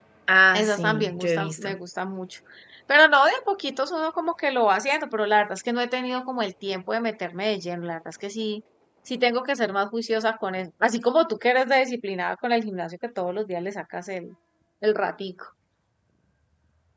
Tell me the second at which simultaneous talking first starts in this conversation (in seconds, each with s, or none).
0.5 s